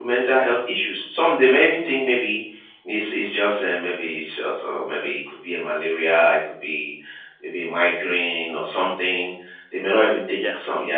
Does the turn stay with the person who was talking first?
Yes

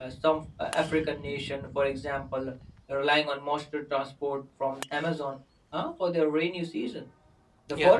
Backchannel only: Yes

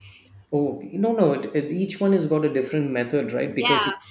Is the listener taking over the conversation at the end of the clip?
Yes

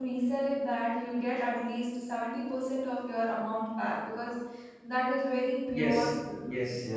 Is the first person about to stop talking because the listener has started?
Yes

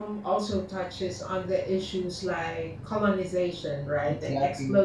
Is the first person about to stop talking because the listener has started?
No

